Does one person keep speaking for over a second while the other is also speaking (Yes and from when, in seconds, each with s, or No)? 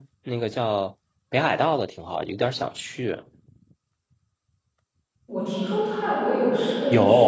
No